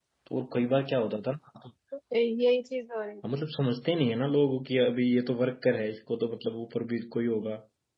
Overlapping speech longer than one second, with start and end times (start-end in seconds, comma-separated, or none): none